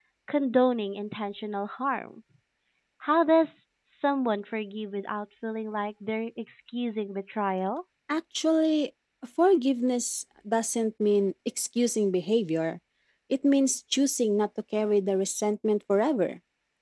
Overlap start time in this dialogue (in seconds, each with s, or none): none